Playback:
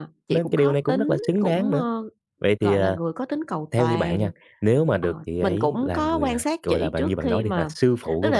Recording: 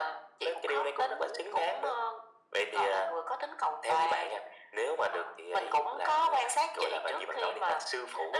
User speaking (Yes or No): No